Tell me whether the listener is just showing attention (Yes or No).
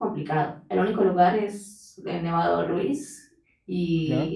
Yes